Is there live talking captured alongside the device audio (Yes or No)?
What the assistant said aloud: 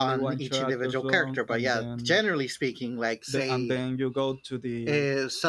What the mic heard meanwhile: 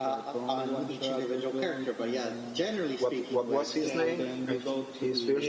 Yes